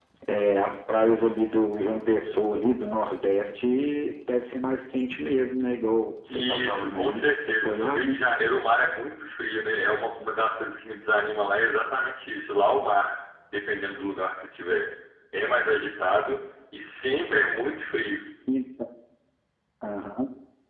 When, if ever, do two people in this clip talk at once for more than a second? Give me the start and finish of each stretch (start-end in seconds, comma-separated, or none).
6.3-8.2